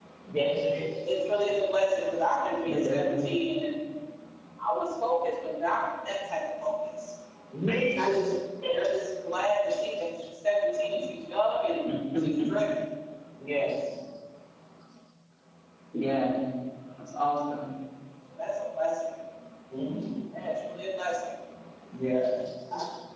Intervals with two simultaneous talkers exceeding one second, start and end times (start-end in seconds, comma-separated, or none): none